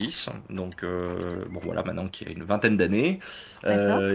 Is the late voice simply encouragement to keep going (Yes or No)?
Yes